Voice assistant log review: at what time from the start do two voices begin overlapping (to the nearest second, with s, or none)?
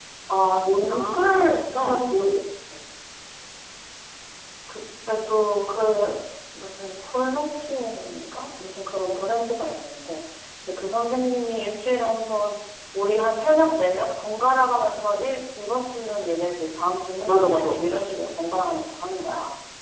1 s